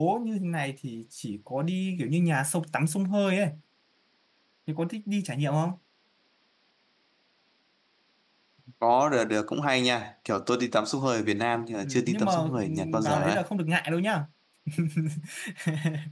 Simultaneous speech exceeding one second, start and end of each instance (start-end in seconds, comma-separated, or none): 11.8-13.4